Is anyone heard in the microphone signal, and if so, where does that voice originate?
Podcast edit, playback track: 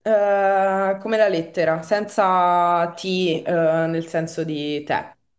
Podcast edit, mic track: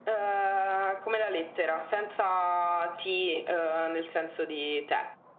echo only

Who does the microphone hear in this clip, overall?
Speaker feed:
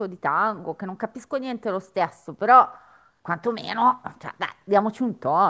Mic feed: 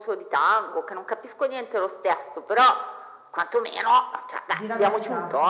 both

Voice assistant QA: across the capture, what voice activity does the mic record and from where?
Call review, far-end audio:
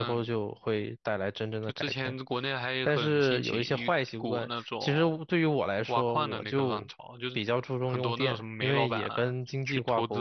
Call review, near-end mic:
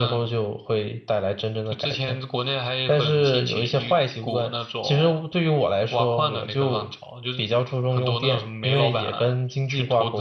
echo only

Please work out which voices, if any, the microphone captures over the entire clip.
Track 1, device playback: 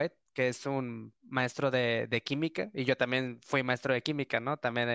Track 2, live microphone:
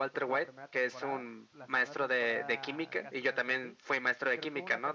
both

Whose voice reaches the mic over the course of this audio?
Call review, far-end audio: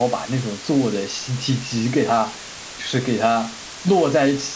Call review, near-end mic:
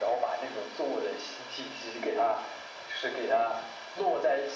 echo only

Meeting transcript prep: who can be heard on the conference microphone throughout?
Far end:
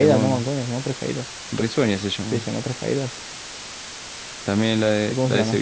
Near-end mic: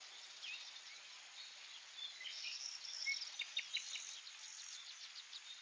neither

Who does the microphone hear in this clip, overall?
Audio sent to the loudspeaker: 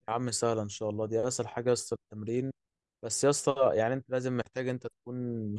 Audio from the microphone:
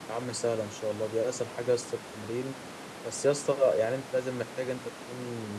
echo only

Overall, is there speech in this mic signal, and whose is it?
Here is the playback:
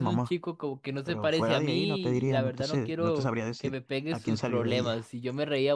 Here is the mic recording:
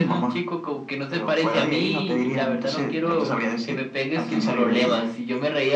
echo only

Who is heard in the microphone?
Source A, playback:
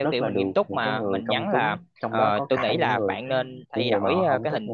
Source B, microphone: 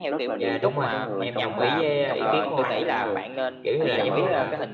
both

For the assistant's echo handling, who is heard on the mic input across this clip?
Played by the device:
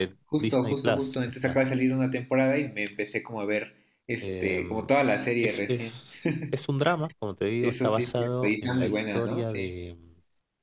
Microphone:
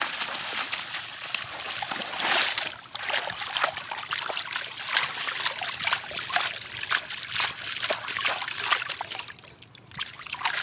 neither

